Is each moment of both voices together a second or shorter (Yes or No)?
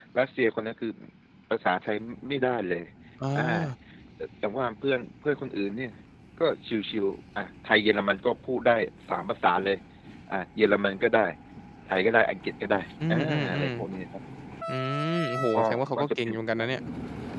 No